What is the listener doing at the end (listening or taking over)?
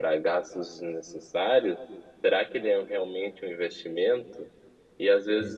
listening